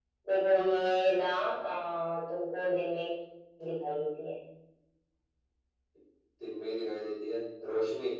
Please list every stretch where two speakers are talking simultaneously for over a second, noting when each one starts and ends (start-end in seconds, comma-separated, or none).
none